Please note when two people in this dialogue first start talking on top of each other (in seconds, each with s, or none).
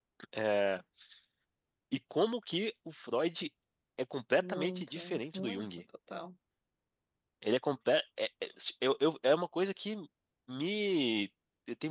4.4 s